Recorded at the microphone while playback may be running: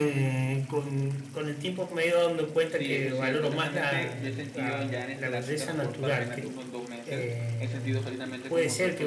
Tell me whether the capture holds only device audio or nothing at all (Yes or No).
No